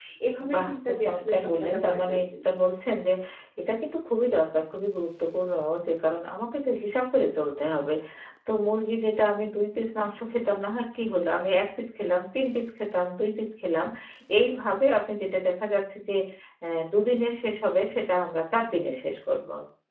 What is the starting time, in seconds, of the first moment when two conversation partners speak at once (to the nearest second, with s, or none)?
1 s